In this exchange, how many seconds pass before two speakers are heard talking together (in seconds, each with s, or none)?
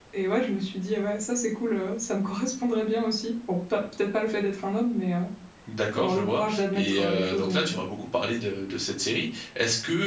6.0 s